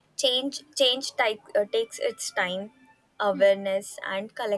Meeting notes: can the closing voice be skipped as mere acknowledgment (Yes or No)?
Yes